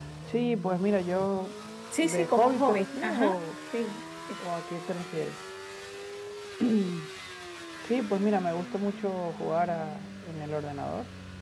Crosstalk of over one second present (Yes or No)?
Yes